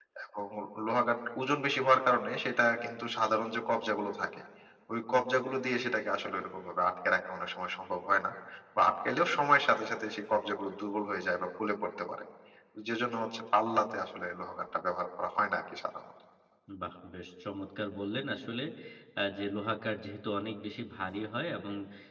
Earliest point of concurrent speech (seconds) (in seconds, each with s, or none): none